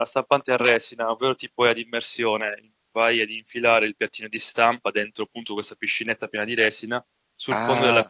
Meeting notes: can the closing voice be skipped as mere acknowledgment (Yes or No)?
Yes